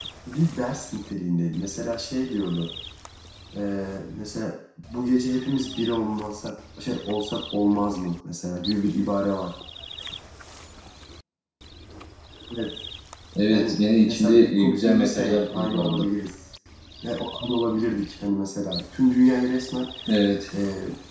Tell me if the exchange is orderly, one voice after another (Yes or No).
No